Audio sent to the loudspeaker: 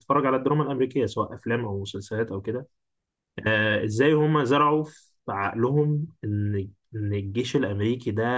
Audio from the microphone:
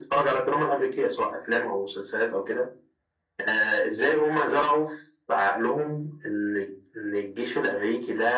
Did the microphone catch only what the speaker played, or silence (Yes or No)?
Yes